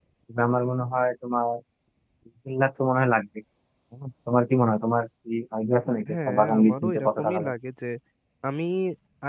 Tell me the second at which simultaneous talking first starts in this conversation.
6 s

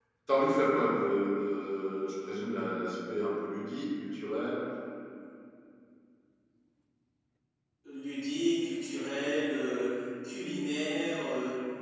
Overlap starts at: none

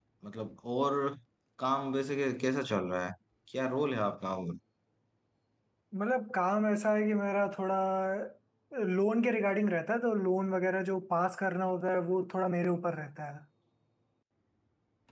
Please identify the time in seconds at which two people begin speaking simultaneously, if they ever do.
none

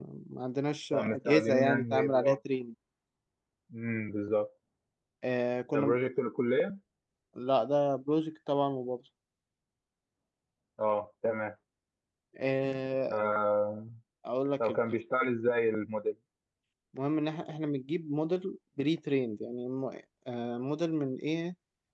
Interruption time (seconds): 1 s

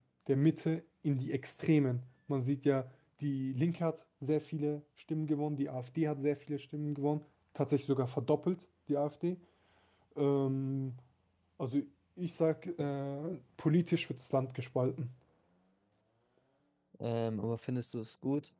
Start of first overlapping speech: none

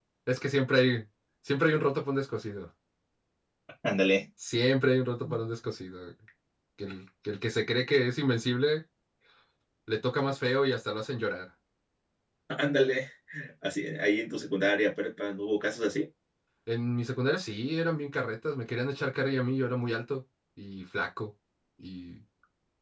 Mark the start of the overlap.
none

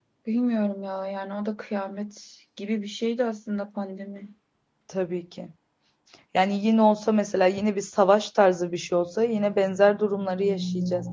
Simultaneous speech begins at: none

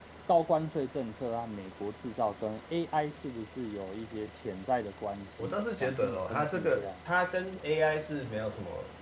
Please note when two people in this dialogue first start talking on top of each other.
5 s

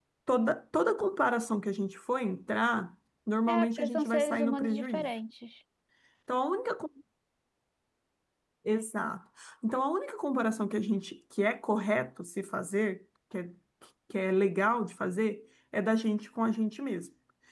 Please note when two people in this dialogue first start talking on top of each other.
3 s

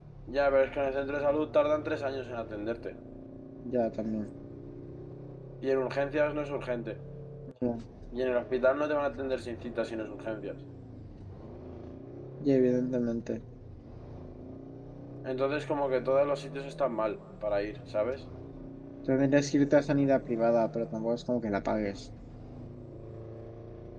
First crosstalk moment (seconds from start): none

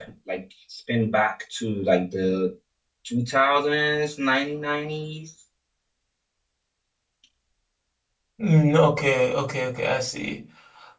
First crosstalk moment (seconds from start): none

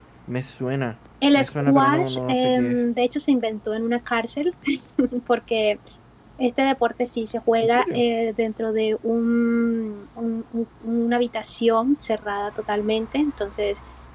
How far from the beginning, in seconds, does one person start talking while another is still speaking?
1 s

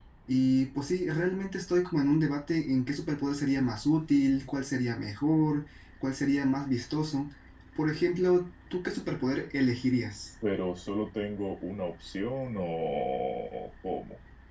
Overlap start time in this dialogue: none

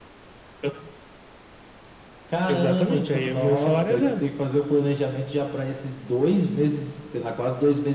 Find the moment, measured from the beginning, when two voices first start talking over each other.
2 s

